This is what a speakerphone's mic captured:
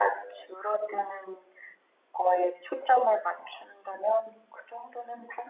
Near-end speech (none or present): none